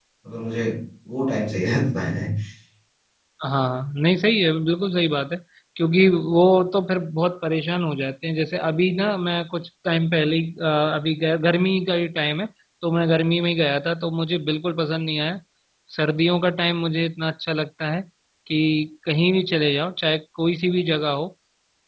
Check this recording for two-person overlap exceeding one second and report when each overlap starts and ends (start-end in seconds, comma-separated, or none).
none